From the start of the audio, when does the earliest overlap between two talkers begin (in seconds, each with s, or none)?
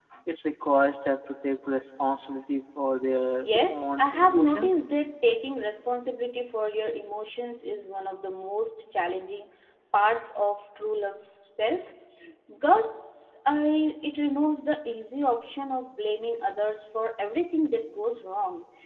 3.4 s